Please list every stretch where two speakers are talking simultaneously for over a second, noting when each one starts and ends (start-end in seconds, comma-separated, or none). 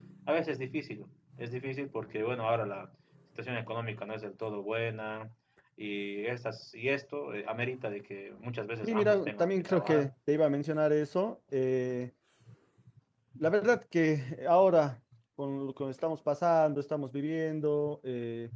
8.8-10.1